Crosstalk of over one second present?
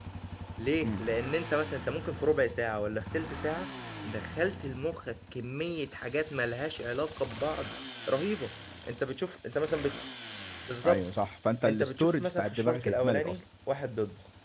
Yes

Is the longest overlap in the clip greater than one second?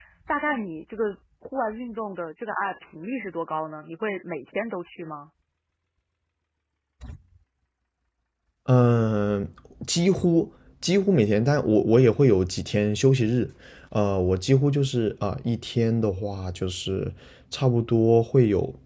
No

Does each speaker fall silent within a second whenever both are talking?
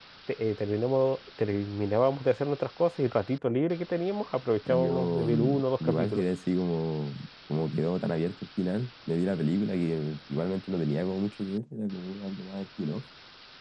No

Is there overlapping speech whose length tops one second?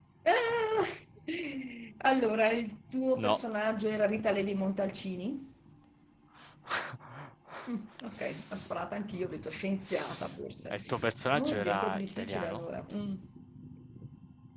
Yes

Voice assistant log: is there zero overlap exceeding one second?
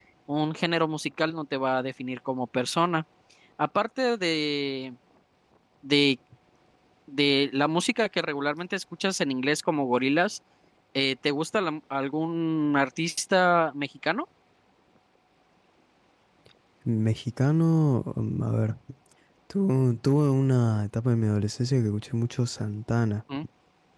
Yes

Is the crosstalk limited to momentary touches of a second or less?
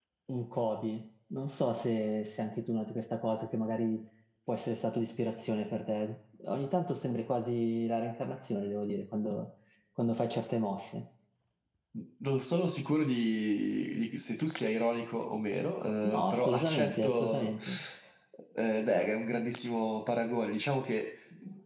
No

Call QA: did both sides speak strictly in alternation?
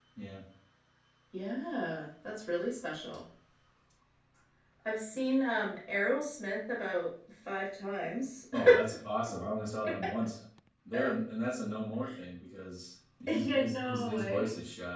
No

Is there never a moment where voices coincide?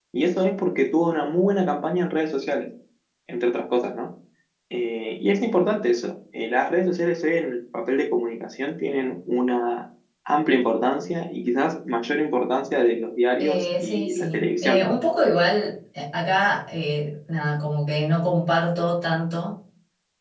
No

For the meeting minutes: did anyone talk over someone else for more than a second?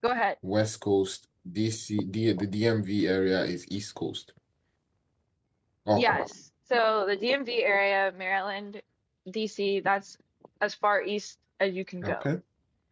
No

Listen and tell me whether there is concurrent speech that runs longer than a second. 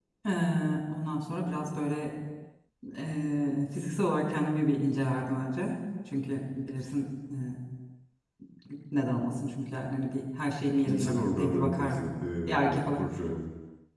Yes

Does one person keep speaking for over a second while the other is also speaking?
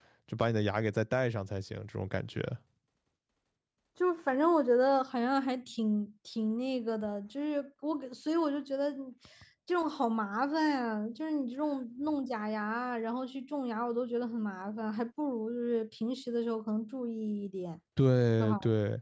No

